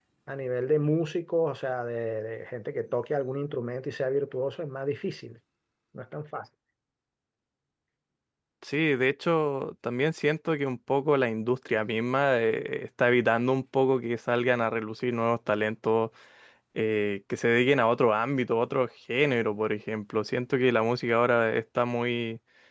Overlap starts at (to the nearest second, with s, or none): none